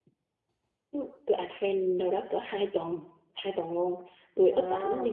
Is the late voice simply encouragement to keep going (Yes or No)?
Yes